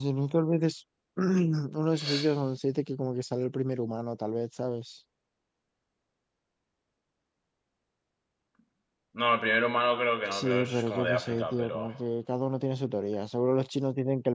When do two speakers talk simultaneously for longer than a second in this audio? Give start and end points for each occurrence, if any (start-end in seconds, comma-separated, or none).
10.3-11.9